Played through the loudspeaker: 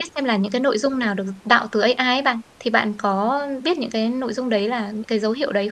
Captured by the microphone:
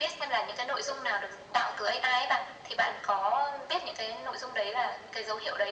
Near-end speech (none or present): none